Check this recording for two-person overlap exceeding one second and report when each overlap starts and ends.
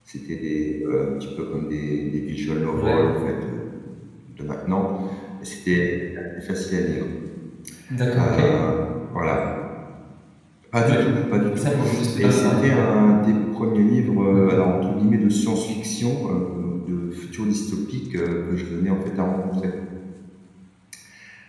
none

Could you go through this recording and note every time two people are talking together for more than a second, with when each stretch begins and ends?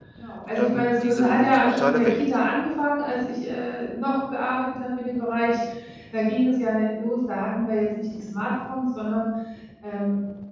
0.6-2.2

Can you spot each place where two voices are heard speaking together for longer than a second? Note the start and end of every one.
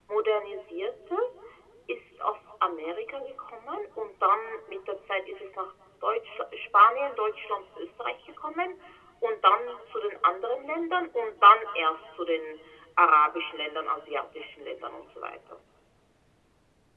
none

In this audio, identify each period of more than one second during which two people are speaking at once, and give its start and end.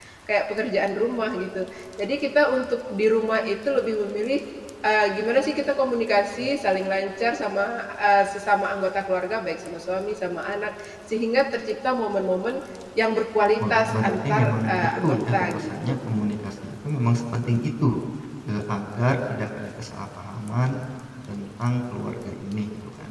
13.7-16.2

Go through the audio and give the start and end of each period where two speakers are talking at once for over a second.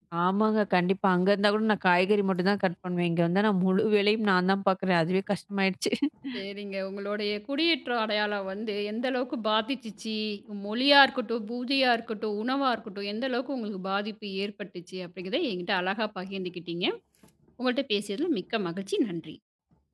none

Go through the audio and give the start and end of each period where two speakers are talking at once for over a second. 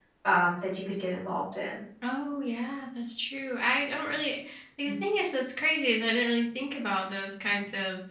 none

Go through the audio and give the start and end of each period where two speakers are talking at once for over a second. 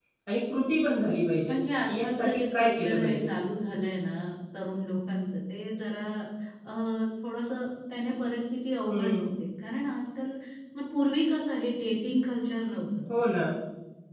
2.0-3.3

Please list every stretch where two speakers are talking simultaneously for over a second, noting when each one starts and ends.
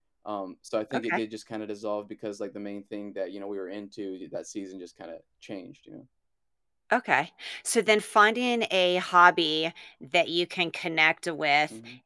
none

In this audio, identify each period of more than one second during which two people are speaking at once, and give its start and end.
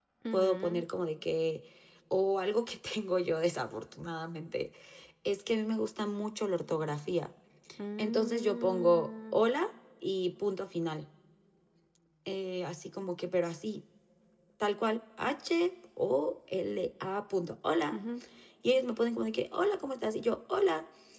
8.0-9.4

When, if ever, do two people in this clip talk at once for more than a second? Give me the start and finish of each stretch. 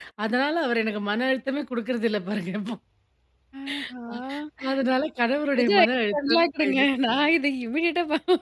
5.6-6.9

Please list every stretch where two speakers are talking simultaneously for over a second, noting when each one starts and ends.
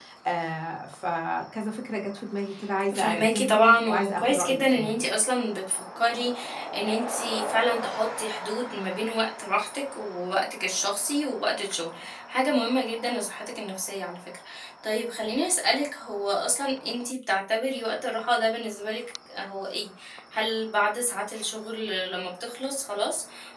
3.0-5.0

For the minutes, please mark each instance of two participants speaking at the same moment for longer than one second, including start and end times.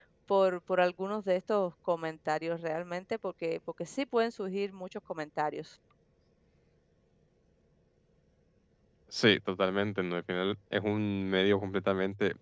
none

